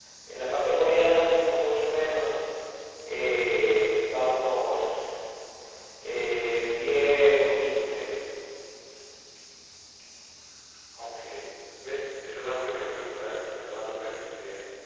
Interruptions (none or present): none